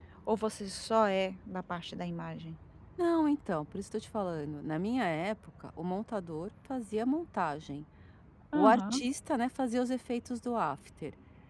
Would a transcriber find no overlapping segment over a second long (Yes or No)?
Yes